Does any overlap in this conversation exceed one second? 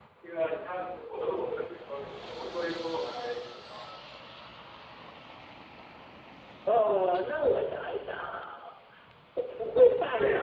No

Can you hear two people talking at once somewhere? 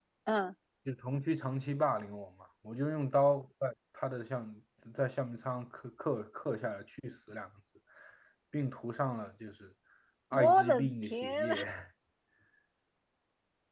Yes, from 10.3 s

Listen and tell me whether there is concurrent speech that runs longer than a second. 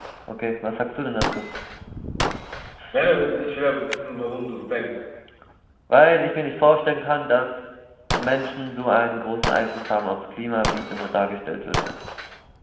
No

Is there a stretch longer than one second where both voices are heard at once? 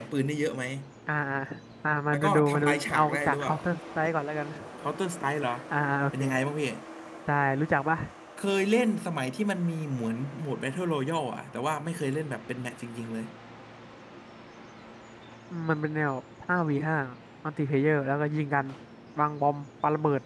Yes, from 2.1 s

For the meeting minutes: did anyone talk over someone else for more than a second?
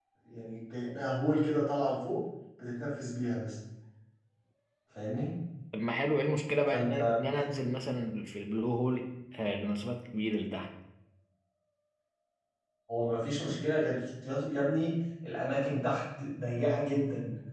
No

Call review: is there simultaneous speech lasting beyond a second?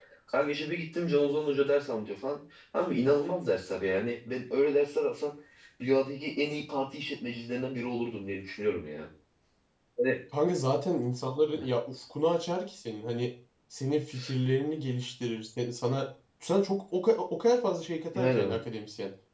No

